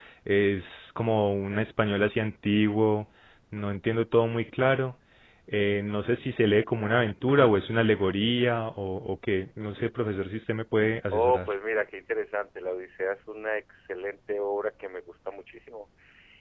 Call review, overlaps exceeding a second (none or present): none